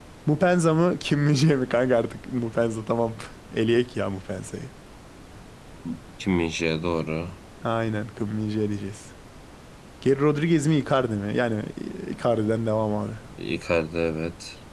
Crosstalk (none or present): none